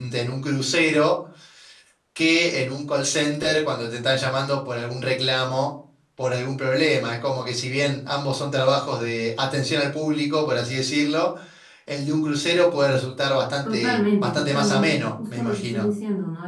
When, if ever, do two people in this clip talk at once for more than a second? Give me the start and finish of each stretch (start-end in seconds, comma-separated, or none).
13.7-15.9